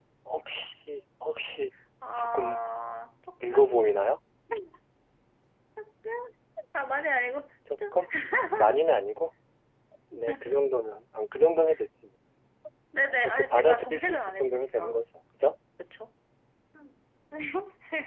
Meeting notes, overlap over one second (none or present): present